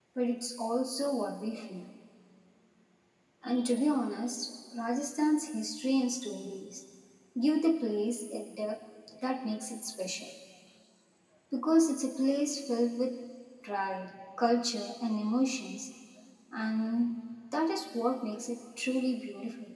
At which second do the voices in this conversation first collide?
none

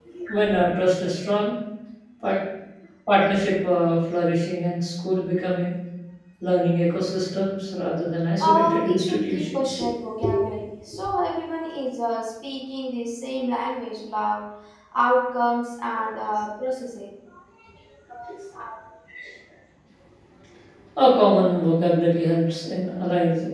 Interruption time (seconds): 8.4 s

